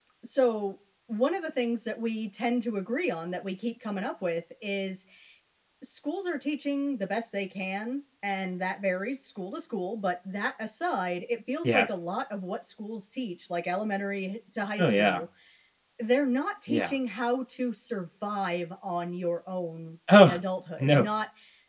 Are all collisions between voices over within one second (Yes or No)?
Yes